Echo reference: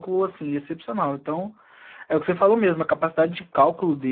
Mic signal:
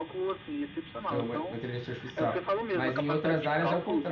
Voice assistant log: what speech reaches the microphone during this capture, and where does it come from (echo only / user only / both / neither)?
both